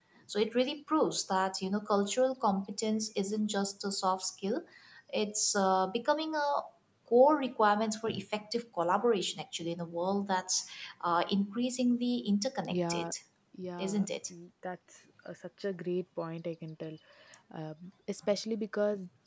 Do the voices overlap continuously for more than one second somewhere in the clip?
No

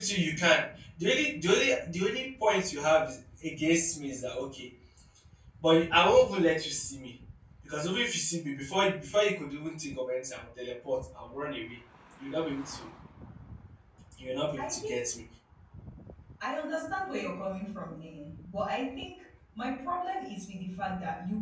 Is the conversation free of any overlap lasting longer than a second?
Yes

